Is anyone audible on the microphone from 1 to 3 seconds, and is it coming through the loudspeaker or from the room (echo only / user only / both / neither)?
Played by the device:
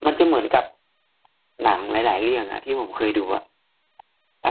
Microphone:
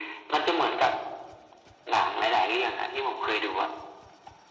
echo only